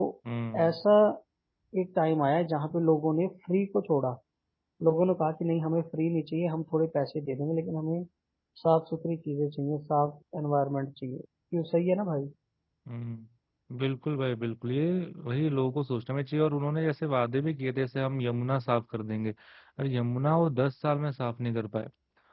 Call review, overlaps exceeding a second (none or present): none